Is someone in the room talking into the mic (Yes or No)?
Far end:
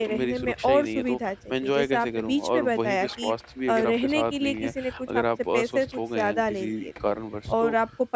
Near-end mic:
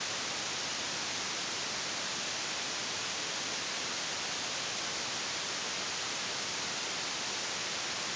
No